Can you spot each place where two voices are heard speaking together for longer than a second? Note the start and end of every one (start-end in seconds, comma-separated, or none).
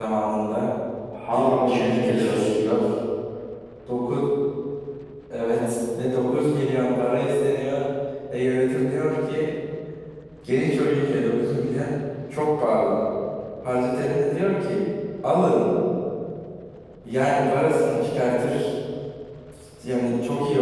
1.3-2.5